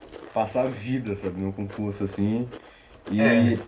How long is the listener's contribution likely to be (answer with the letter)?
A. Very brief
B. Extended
A